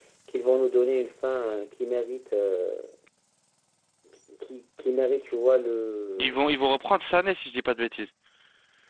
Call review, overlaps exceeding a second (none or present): none